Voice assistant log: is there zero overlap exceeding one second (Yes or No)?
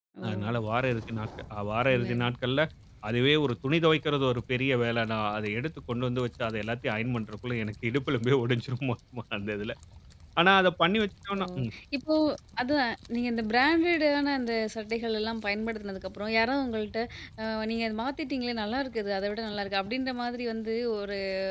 Yes